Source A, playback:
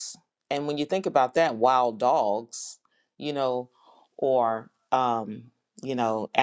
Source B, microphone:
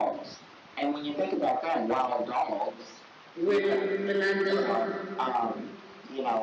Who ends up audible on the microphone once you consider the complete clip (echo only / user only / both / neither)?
both